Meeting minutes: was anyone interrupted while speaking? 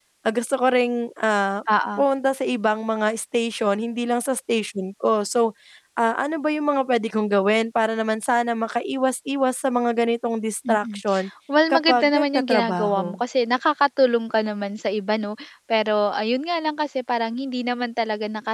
Yes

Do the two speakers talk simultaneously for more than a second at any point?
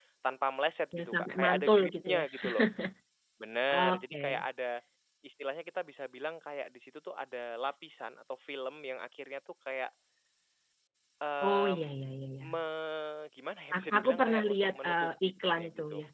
Yes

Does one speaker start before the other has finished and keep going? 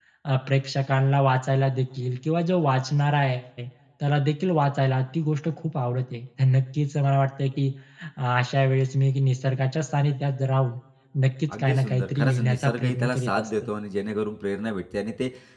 Yes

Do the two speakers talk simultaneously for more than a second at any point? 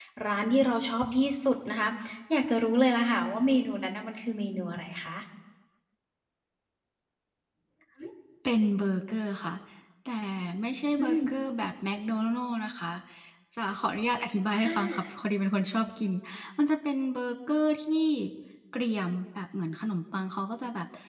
No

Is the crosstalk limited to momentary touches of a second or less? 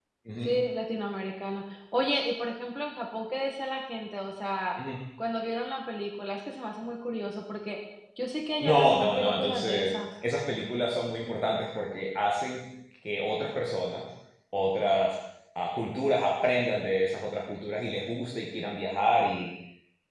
No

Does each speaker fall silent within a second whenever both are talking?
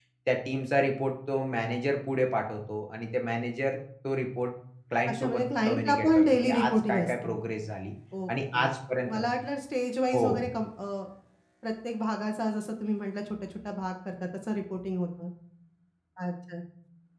No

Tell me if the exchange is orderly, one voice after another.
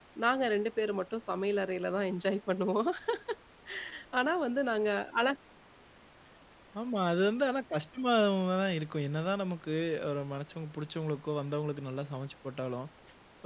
Yes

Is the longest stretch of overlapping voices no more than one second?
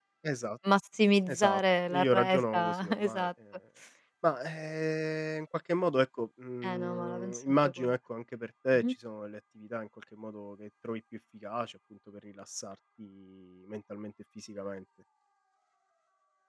No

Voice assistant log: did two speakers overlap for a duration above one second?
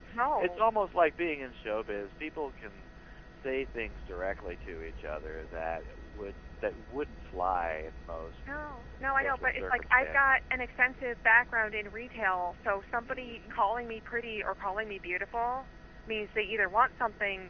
Yes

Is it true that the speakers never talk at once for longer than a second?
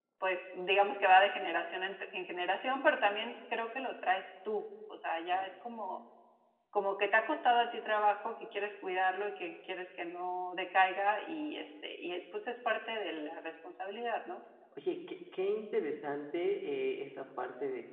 Yes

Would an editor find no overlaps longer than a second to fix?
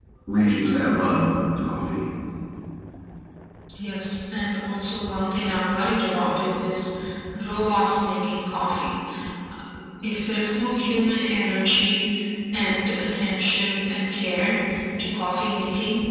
Yes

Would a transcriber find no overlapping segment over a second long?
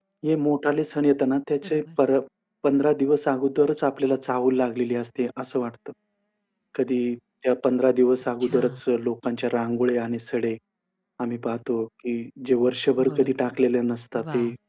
Yes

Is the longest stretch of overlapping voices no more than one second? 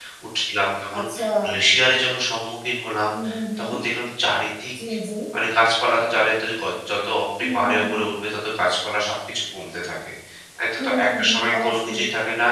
No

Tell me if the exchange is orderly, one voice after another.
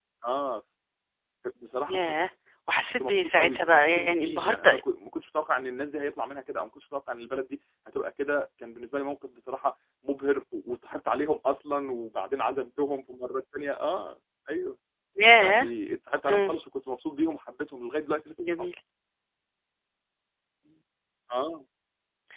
No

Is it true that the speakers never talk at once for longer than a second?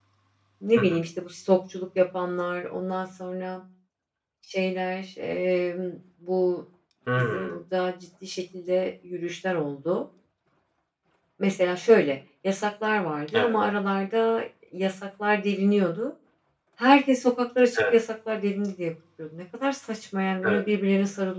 Yes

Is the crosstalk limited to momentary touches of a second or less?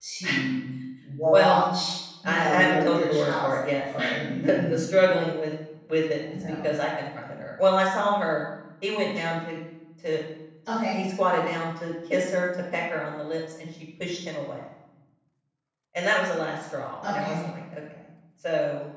No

